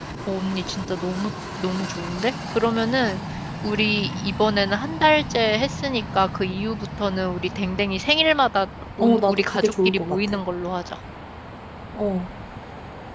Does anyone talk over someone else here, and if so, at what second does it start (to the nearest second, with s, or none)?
9 s